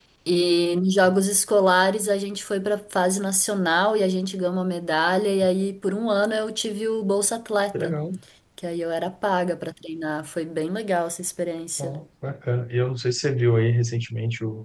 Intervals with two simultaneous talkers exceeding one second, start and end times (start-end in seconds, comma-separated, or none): none